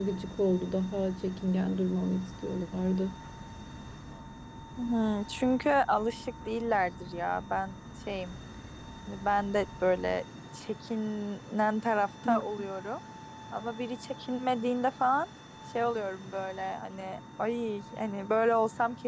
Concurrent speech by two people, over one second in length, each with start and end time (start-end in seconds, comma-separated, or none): none